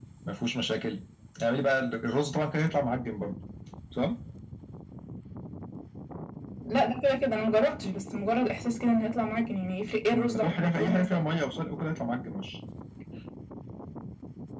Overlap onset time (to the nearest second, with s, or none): 10 s